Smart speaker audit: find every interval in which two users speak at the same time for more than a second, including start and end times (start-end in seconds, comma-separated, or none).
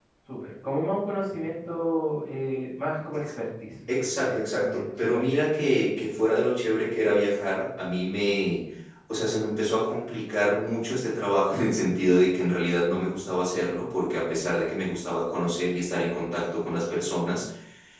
4.0-5.2